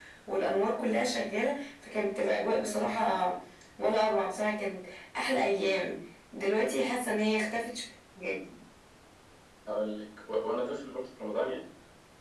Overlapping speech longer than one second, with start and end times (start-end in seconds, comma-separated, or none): none